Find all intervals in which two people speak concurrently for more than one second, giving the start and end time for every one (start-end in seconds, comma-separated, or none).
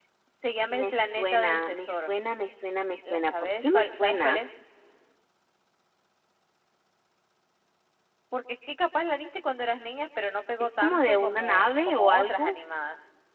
0.7-2.1, 3.0-4.4, 10.6-12.6